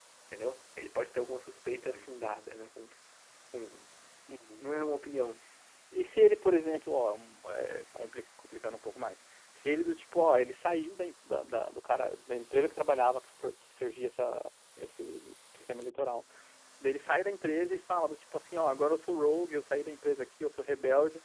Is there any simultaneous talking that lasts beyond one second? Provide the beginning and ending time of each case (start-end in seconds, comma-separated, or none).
none